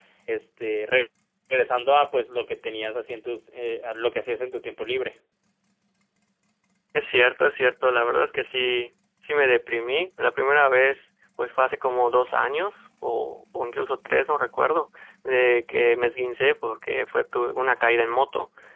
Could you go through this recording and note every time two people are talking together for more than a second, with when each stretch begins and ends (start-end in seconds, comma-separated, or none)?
none